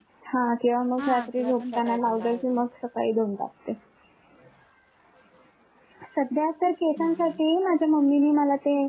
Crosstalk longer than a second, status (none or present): present